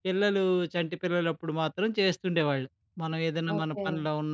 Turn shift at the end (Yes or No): No